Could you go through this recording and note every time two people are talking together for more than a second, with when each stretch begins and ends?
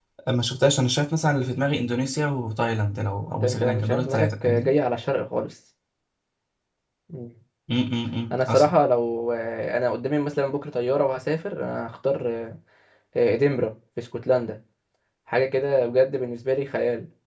3.4-4.7

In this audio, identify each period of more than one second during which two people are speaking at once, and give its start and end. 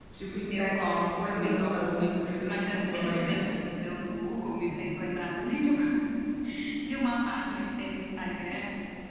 0.5-3.4

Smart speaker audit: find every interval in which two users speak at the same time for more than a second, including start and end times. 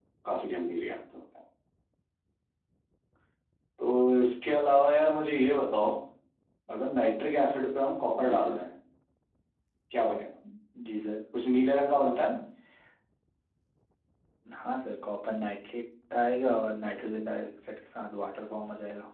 none

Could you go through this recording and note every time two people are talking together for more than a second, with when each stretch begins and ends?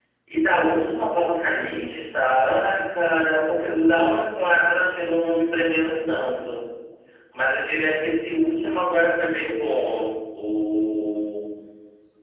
none

